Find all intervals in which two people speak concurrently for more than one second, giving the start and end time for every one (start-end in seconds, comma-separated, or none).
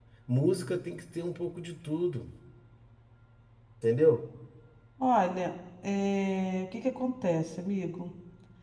none